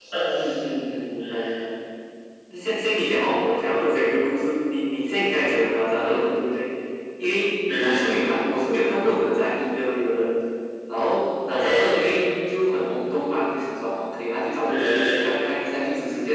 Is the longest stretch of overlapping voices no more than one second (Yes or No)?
Yes